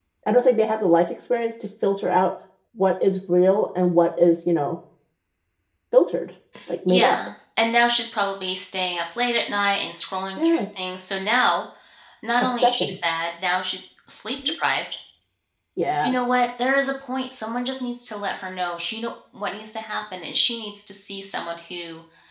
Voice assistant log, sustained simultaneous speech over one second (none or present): none